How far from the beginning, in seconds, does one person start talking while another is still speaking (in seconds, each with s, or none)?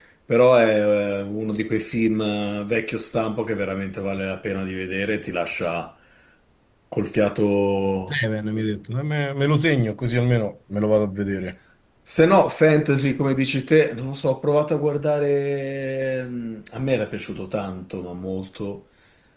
none